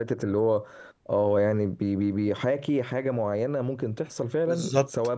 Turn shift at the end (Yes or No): Yes